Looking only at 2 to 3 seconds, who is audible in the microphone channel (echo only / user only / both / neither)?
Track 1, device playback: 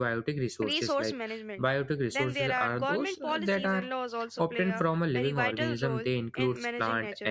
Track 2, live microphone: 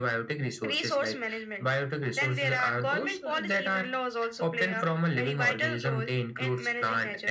echo only